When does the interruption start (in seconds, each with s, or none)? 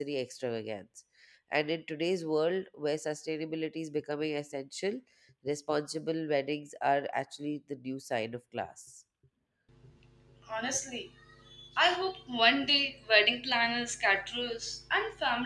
none